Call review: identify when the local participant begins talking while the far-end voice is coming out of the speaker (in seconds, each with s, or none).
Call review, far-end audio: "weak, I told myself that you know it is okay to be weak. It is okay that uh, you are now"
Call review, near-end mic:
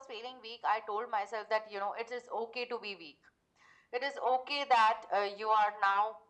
none